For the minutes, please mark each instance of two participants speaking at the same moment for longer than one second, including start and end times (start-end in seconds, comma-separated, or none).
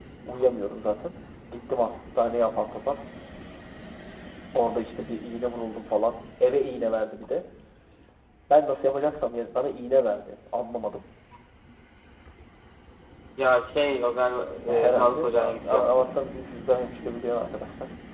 14.7-16.2